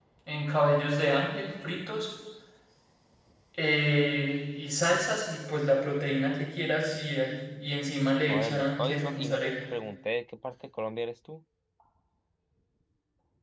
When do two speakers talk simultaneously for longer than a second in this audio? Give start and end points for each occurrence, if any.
8.3-9.5

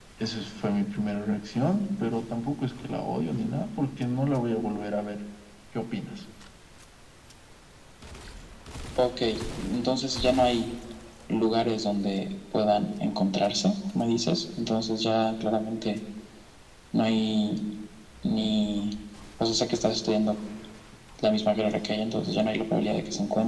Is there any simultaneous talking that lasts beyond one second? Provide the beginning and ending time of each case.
none

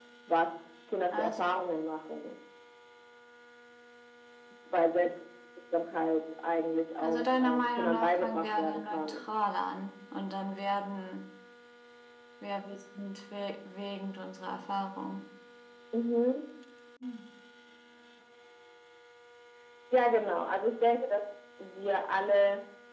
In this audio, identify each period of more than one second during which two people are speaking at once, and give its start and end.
7.0-9.2

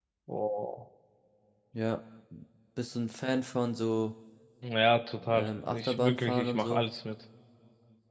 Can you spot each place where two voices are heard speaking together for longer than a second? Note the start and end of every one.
5.3-6.8

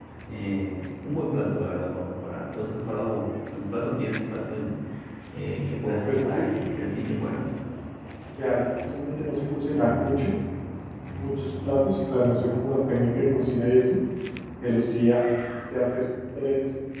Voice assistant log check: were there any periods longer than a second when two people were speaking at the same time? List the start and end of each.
none

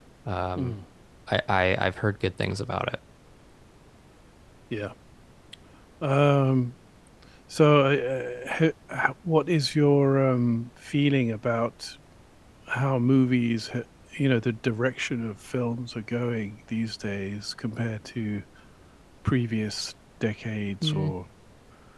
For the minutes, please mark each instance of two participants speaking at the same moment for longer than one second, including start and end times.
none

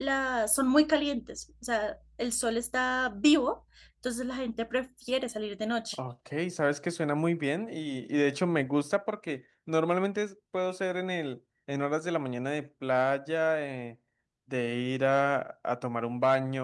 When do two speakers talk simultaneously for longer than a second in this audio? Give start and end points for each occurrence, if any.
none

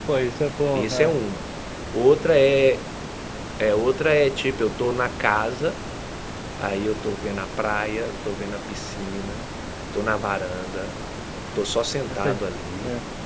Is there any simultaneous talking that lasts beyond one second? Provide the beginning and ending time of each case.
none

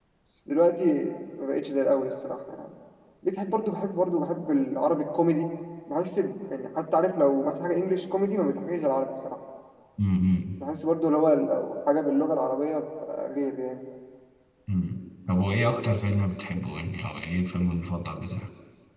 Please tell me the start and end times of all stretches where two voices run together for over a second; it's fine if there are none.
none

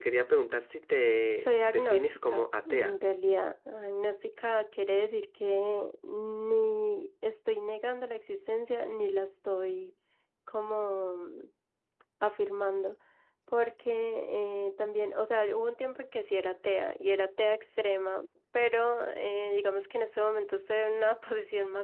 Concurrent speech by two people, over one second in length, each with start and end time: 1.4-3.0

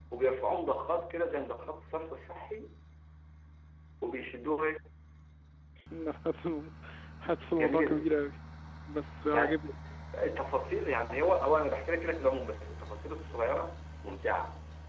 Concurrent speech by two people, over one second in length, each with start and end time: none

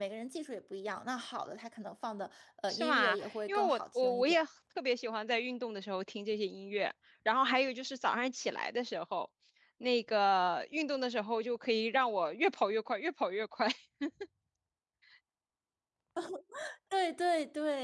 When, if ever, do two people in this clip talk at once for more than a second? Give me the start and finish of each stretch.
2.7-4.4

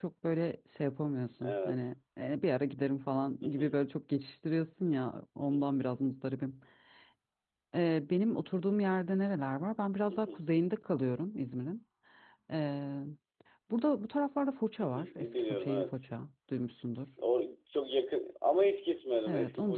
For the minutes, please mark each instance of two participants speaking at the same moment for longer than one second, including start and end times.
14.8-16.1

